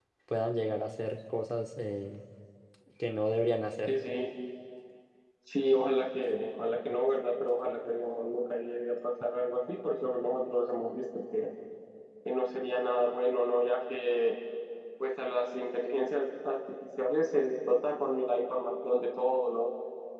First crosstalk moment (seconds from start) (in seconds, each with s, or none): none